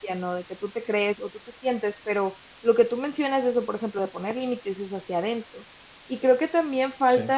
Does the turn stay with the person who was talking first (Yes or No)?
Yes